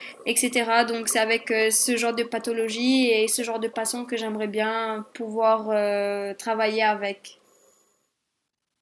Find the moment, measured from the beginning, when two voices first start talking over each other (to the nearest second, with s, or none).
none